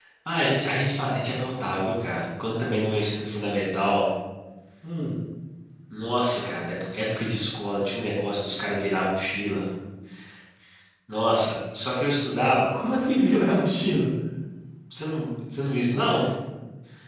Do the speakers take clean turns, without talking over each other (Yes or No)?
Yes